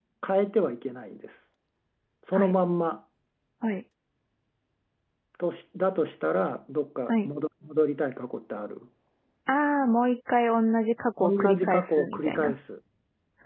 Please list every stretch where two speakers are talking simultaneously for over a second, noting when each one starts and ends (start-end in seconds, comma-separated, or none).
11.2-12.5